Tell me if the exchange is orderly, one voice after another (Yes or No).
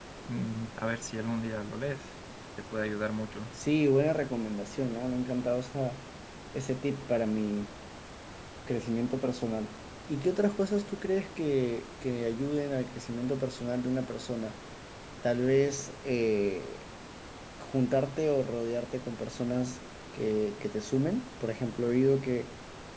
Yes